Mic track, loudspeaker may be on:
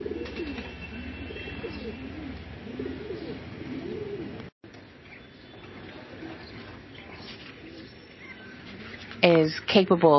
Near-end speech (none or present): present